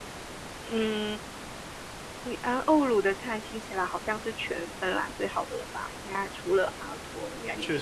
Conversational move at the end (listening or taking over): taking over